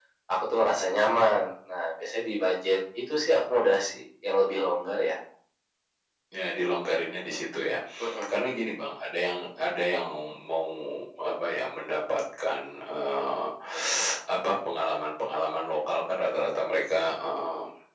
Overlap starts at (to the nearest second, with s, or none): none